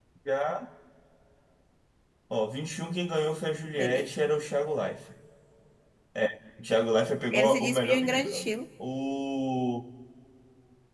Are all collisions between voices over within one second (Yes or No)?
No